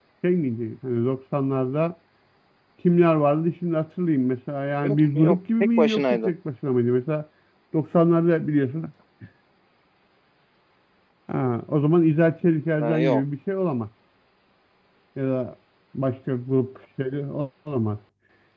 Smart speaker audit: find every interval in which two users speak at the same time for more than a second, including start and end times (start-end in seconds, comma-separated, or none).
4.8-6.3